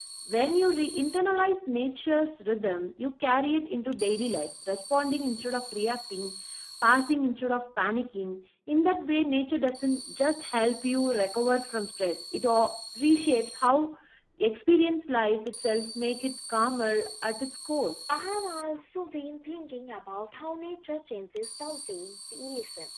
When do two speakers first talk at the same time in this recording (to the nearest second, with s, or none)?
none